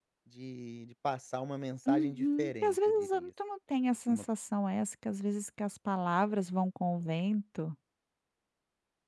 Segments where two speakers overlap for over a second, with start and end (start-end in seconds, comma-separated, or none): 1.9-3.3